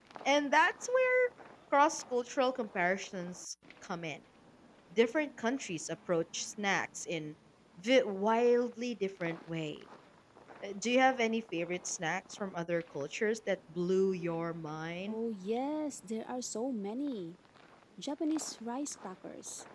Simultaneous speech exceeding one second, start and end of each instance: none

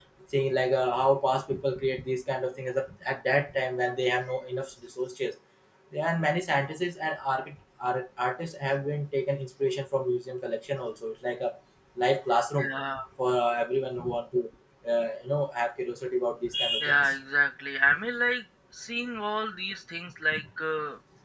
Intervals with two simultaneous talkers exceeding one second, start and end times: none

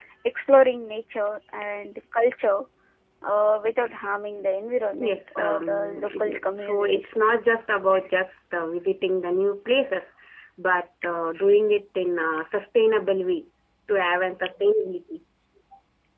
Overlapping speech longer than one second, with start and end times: 5.1-7.2

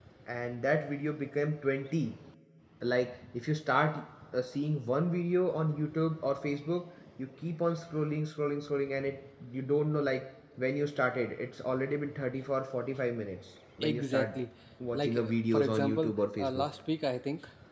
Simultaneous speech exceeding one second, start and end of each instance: 14.9-16.6

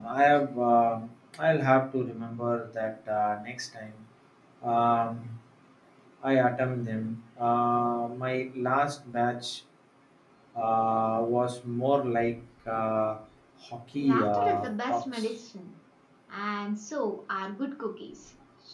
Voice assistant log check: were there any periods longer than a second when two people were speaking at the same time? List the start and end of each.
14.0-15.3

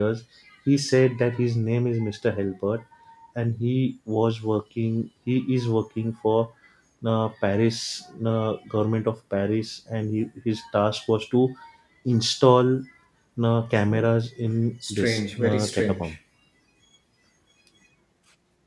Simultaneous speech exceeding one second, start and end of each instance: 14.9-16.1

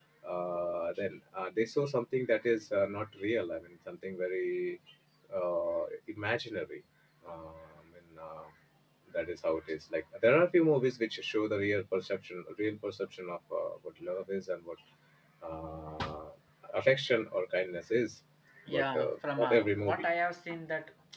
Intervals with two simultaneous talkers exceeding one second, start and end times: 18.7-20.1

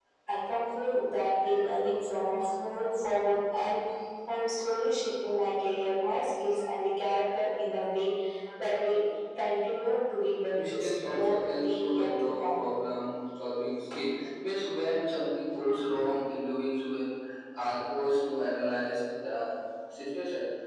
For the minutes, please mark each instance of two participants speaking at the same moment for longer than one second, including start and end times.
10.5-12.6

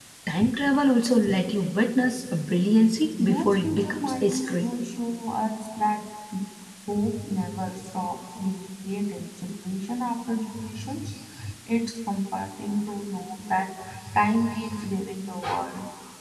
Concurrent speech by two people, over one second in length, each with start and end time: 3.2-4.7

